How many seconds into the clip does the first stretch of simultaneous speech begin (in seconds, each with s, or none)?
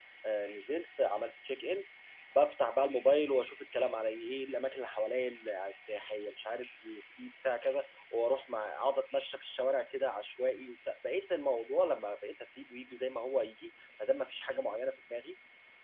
none